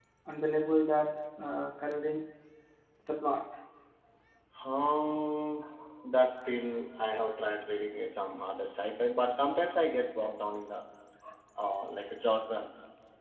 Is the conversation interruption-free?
Yes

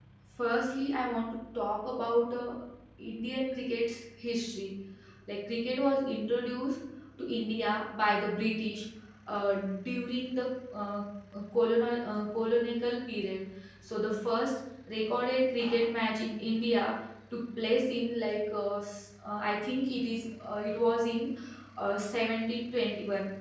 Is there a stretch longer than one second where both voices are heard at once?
No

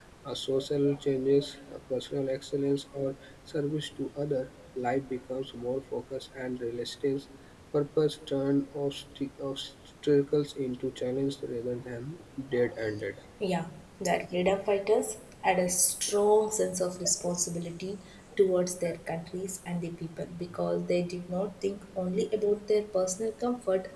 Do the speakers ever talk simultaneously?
No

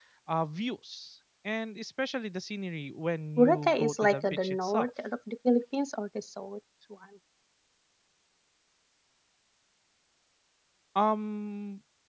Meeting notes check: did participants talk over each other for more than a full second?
Yes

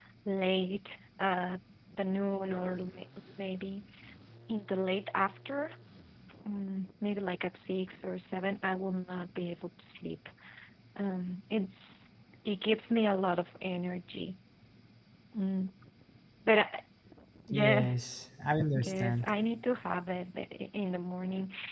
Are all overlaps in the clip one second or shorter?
Yes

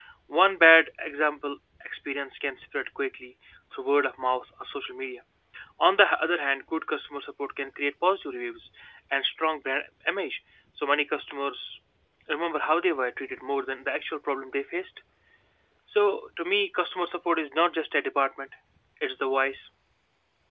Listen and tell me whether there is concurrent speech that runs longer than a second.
No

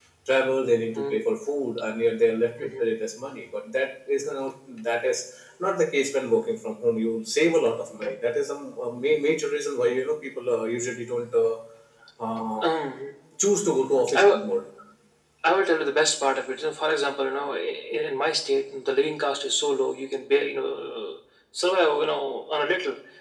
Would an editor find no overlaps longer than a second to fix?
Yes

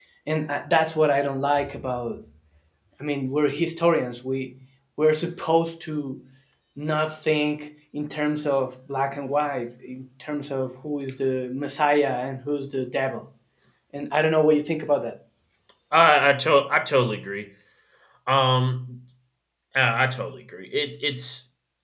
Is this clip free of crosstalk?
Yes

